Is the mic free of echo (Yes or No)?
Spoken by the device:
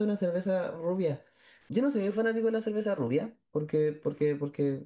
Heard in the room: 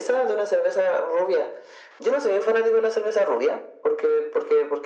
No